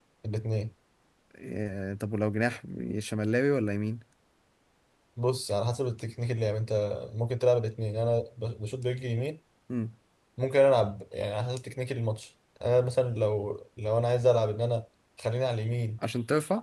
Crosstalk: none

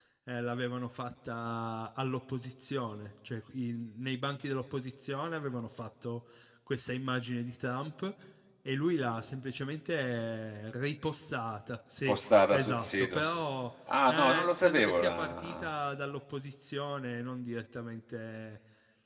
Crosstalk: present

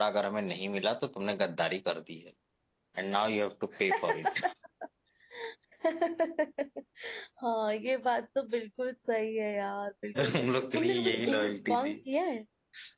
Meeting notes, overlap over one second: present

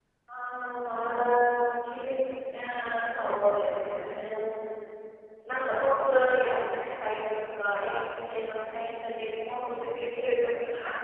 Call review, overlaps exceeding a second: present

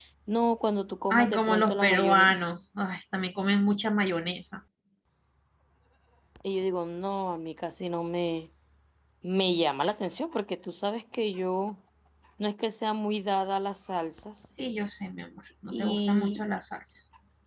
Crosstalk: present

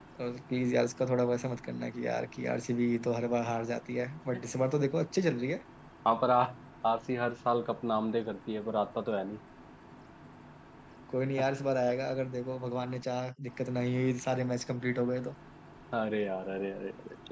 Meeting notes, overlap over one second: none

